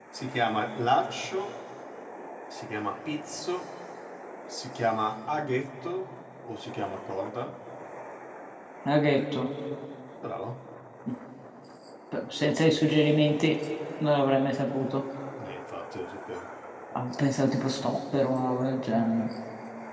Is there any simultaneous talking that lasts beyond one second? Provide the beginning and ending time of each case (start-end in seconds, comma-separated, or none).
none